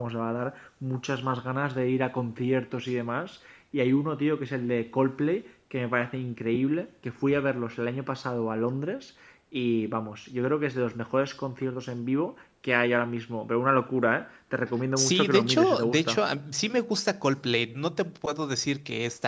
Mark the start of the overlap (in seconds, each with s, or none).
15.0 s